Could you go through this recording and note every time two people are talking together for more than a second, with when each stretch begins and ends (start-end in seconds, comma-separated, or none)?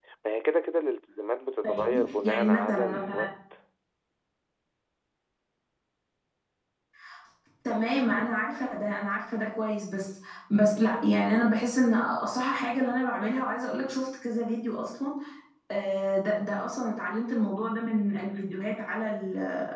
1.6-3.3